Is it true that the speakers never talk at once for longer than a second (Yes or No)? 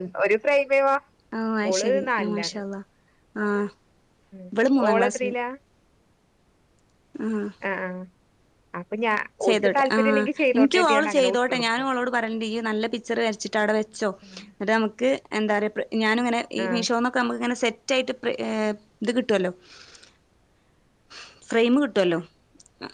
No